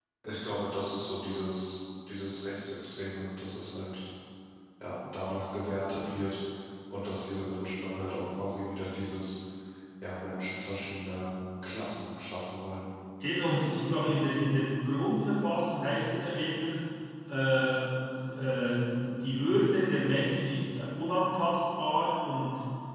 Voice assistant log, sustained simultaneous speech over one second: none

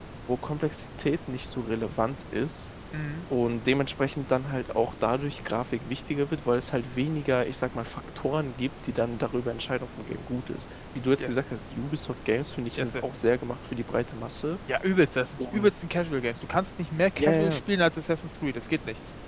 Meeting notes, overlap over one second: none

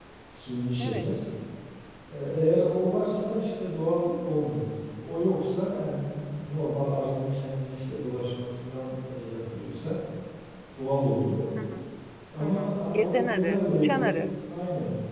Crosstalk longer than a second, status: present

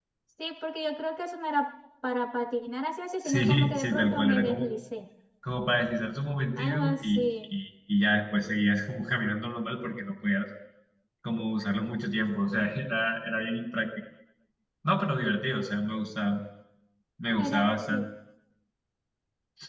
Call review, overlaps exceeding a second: present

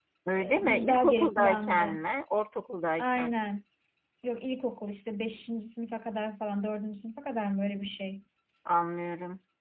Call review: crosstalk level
present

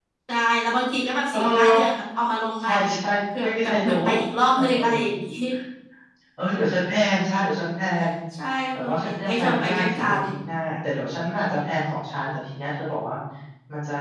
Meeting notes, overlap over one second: present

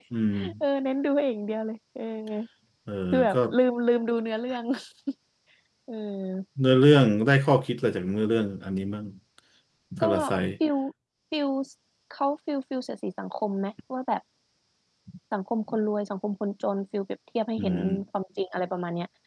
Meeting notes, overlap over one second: none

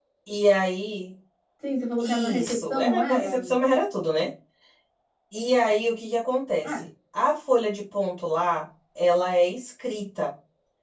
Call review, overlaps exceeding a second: present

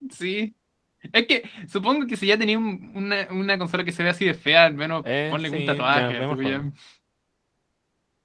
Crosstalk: present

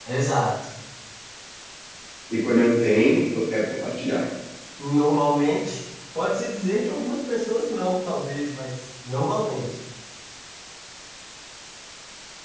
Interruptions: none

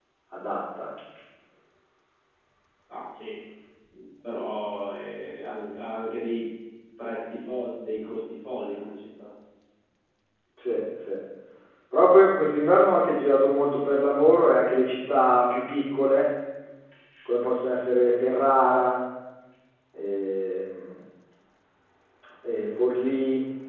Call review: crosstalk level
none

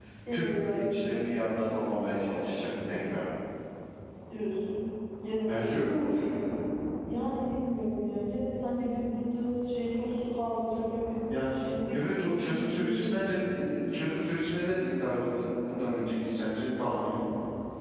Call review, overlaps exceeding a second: present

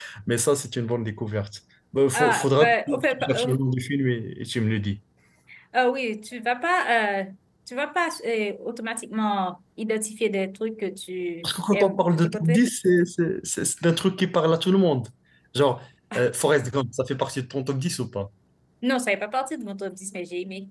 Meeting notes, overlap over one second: present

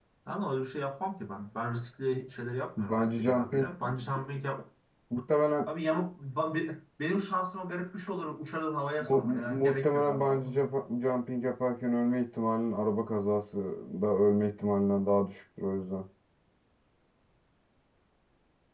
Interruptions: present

